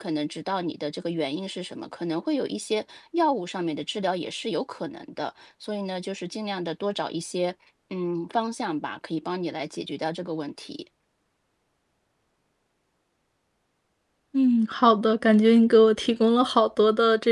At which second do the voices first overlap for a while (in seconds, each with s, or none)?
none